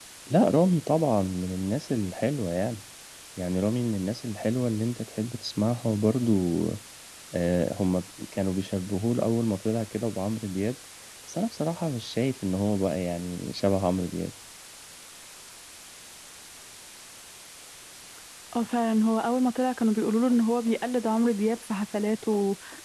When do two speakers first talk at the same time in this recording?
none

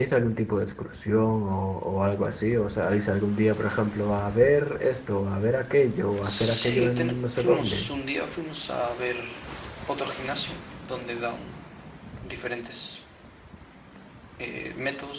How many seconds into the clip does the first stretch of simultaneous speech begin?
6.2 s

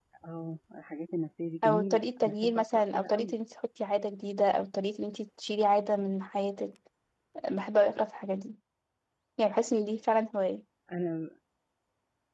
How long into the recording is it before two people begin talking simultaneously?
1.6 s

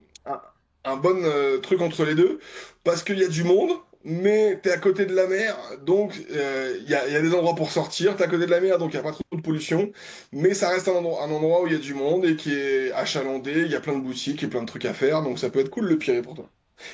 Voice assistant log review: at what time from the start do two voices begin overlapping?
none

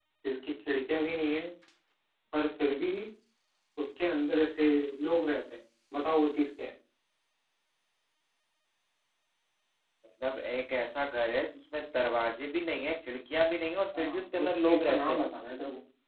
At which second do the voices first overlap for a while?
13.9 s

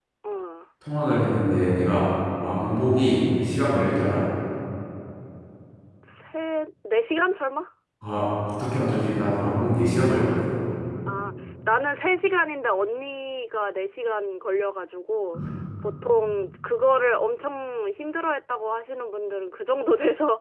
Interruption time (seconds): none

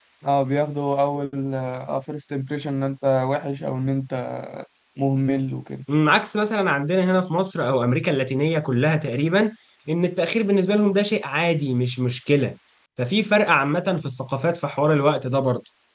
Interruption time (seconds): none

